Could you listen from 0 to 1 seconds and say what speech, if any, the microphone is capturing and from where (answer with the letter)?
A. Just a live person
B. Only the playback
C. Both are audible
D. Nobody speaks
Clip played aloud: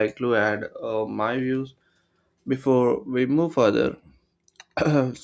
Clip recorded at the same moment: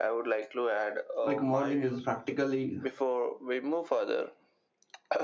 B